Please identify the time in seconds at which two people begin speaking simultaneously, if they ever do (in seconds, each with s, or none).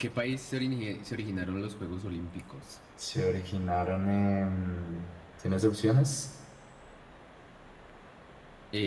none